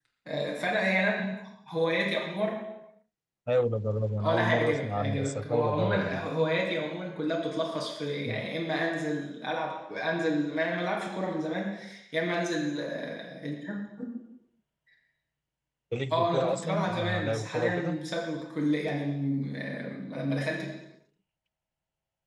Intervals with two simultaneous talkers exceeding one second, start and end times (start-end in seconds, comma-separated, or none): 4.2-6.3, 16.1-18.0